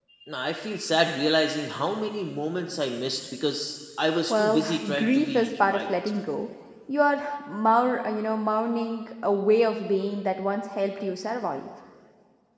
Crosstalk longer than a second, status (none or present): present